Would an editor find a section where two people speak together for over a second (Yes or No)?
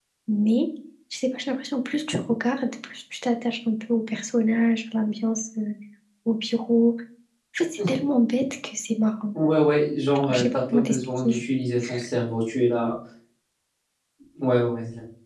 Yes